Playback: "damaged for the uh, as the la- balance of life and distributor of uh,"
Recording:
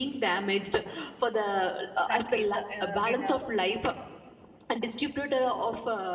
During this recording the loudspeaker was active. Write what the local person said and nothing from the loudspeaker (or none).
countries uh, when uh,